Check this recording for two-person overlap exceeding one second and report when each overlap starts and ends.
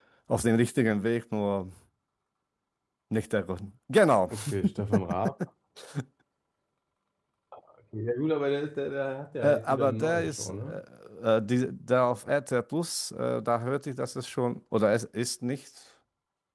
9.4-10.8

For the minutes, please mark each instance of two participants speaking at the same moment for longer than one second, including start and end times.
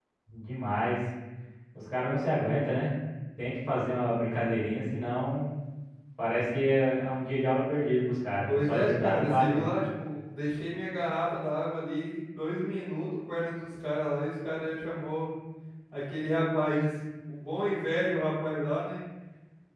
8.5-9.8

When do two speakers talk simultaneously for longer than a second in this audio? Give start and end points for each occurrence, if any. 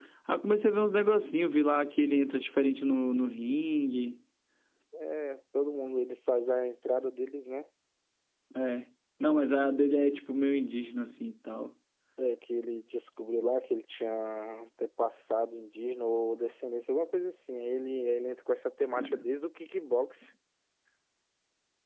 none

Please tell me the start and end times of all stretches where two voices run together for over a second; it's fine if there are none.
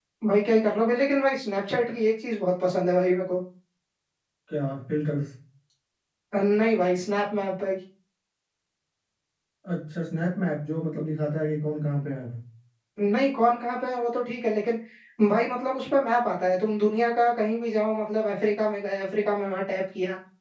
none

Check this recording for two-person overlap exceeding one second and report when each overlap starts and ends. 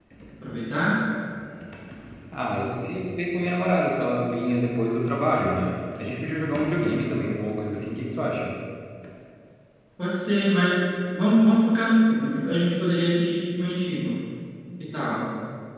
none

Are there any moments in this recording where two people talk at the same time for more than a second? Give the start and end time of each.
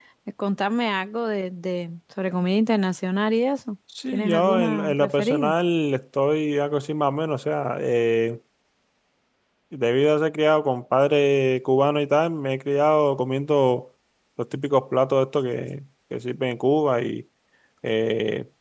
4.1-5.5

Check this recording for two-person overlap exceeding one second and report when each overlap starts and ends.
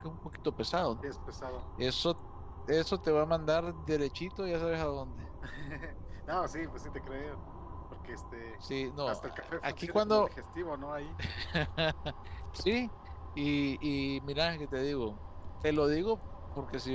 9.1-10.3

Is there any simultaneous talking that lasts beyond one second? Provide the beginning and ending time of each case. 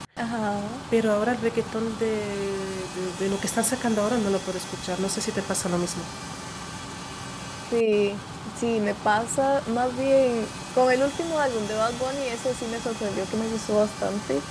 none

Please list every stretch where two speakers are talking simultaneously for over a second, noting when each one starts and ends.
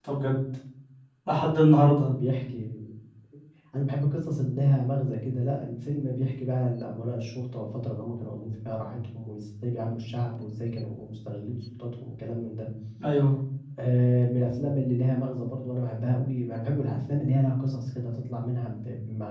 none

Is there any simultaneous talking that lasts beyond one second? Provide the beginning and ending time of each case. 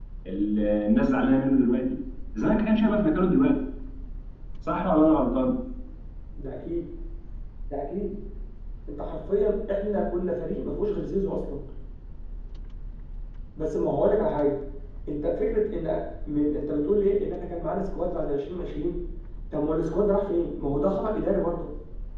none

